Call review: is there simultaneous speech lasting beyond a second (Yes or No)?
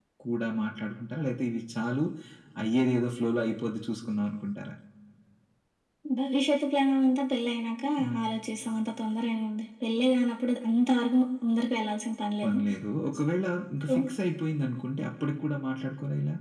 No